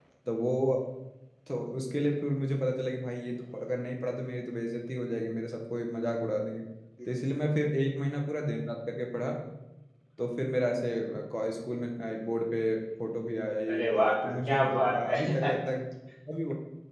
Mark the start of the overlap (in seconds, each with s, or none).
13.7 s